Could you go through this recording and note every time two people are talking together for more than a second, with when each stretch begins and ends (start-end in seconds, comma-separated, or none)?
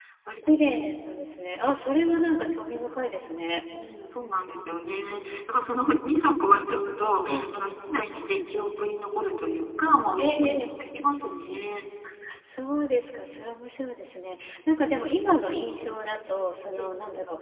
none